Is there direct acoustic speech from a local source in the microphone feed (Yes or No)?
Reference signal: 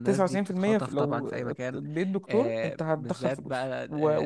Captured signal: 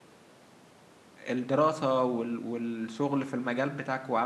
Yes